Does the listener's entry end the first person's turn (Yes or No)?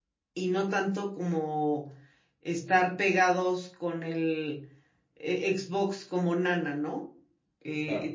No